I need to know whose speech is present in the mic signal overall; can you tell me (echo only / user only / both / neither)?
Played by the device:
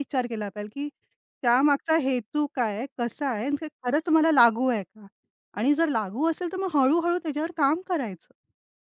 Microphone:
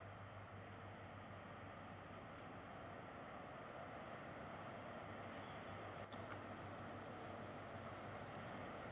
neither